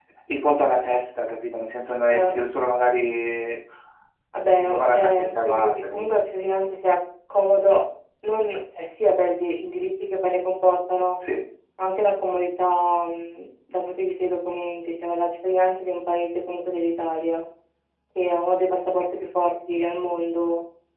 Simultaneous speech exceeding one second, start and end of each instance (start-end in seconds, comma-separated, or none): 4.6-6.2